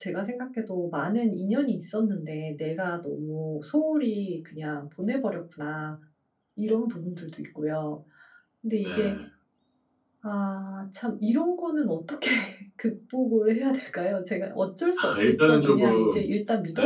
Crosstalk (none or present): present